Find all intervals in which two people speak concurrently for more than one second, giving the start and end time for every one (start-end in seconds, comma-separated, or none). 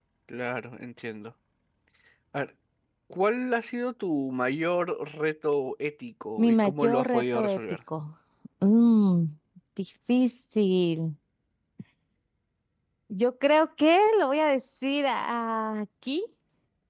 6.4-7.8